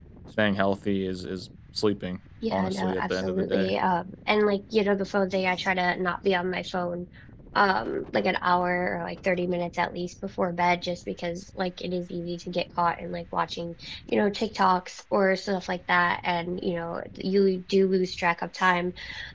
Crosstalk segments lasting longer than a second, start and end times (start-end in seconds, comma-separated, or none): 2.5-3.7